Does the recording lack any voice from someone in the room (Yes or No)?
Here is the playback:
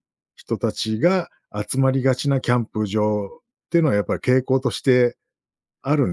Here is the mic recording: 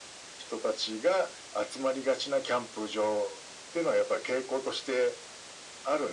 Yes